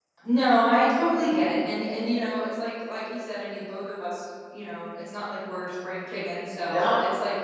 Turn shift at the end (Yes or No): No